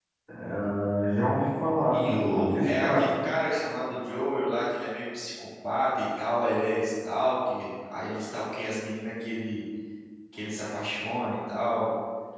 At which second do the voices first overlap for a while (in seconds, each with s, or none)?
1.9 s